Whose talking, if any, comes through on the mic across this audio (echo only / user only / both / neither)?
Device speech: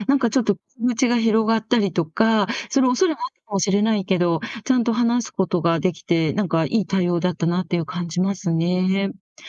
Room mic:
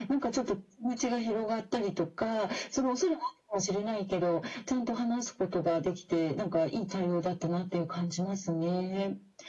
echo only